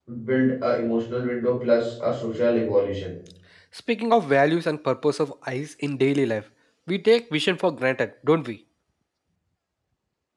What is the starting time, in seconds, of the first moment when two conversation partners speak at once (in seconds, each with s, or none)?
none